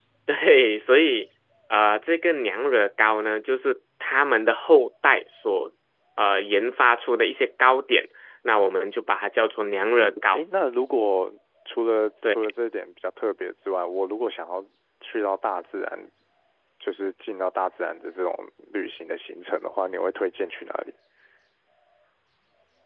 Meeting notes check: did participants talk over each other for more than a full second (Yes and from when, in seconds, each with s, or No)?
No